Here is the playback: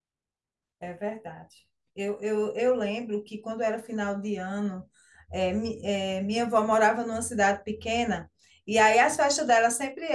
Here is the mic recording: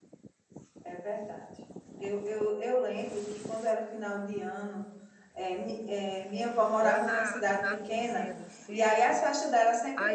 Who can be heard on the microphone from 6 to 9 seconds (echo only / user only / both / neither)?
both